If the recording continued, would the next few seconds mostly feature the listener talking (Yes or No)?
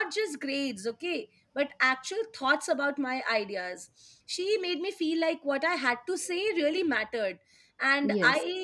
No